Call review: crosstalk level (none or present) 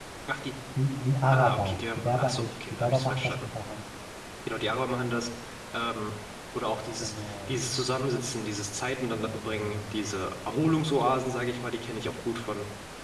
present